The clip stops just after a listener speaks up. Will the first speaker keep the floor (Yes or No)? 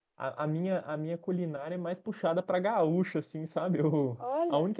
Yes